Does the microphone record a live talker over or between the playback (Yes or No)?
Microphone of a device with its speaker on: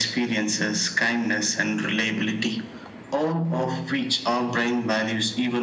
No